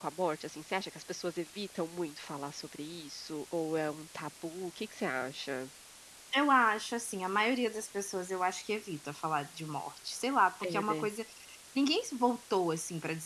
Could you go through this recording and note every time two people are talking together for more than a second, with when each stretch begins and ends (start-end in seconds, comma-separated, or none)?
none